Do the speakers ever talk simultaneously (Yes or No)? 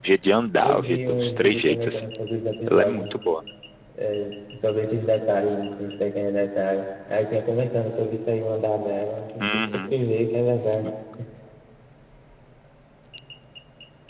Yes